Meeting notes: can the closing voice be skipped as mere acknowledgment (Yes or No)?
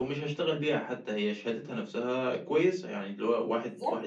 Yes